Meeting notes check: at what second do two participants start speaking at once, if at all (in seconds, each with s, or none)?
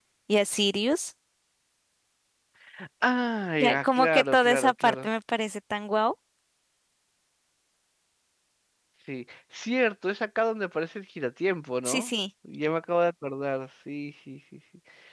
3.6 s